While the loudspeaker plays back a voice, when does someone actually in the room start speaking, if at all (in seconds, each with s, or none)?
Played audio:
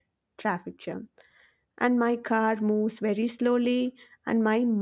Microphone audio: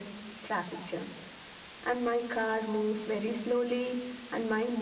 none